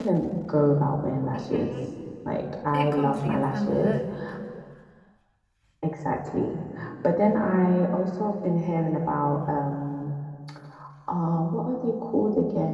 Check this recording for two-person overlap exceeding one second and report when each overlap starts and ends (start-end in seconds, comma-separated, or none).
2.7-4.0